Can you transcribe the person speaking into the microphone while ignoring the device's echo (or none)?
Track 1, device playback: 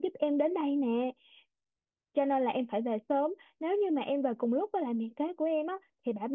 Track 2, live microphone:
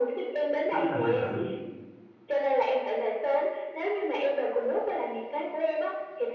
anh là hoàng tử